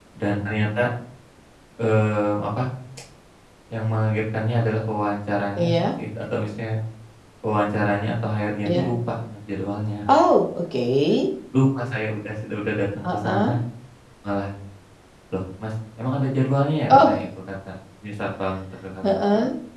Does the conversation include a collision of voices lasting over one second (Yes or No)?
No